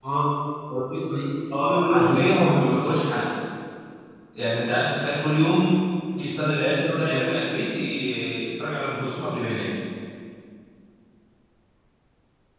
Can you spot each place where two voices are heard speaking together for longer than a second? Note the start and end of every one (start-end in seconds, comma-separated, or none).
1.5-2.8